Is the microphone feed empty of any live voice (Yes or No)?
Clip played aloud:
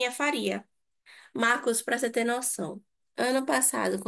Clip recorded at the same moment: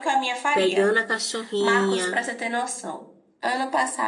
No